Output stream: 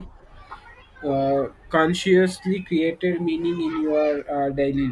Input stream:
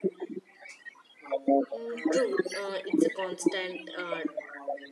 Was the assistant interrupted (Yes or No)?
Yes